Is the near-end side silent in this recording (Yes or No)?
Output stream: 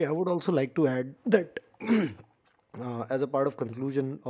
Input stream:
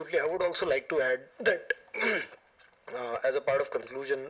Yes